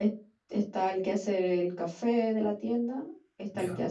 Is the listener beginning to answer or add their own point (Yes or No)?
No